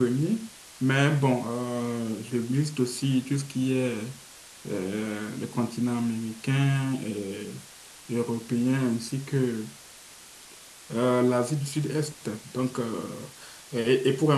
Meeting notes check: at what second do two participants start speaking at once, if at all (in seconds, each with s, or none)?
none